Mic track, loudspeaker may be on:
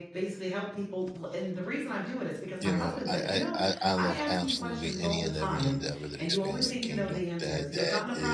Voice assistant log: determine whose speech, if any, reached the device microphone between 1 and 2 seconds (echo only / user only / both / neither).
echo only